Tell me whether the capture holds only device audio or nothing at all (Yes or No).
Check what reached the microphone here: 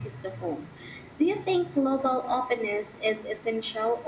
Yes